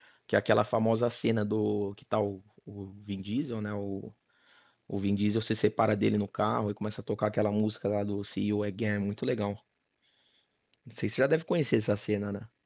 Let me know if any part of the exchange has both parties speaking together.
No

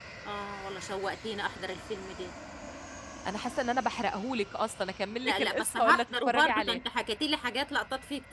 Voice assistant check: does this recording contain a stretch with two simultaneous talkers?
Yes, from 5.2 s

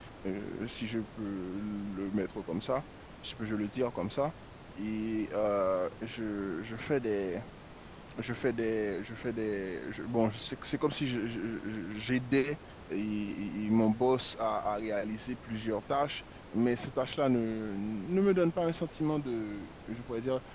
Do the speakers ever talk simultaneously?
No

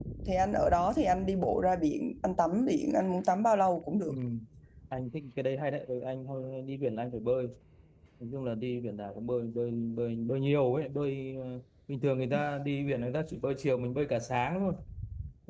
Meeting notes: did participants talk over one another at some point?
No

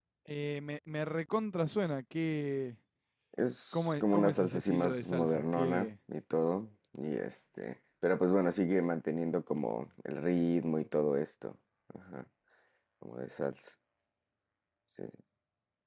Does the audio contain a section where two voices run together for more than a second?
Yes, from 3.7 s

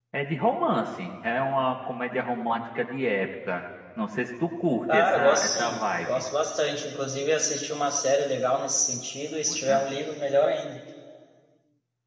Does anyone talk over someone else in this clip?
Yes, from 4.9 s

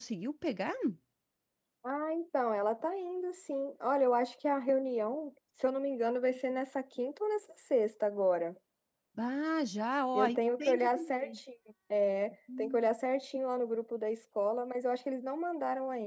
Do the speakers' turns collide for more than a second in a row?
Yes, from 10.1 s

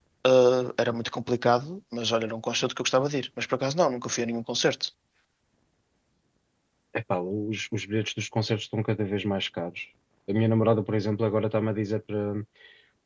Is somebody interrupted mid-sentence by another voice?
No

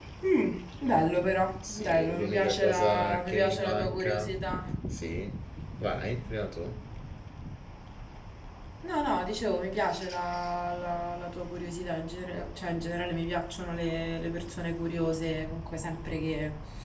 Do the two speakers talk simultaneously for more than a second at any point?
Yes, from 1.6 s

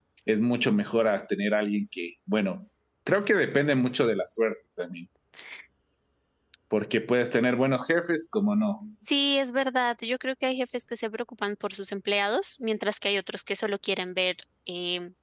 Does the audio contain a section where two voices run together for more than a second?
No

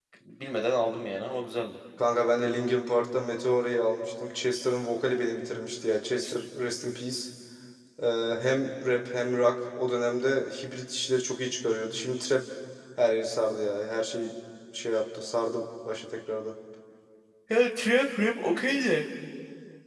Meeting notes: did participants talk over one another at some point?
No

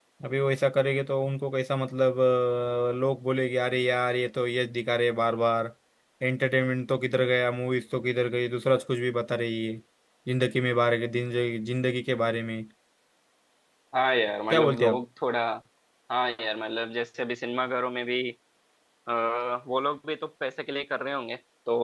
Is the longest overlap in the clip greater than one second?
No

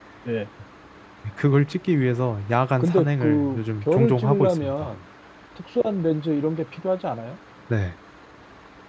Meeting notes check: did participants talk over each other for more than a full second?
Yes, from 2.8 s

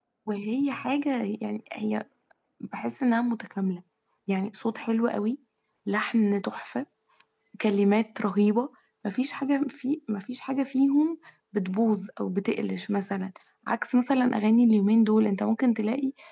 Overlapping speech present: No

